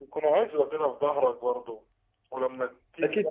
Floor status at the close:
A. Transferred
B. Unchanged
A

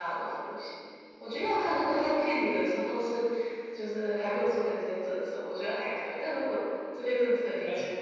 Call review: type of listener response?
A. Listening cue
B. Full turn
A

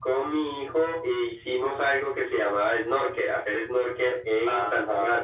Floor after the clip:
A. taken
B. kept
A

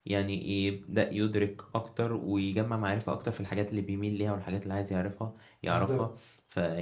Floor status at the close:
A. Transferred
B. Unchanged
B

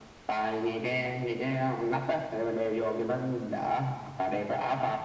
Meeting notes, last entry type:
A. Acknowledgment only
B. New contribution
A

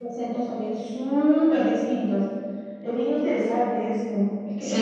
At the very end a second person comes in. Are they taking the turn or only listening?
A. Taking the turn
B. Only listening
A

